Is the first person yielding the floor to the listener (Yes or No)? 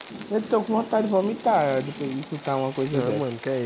Yes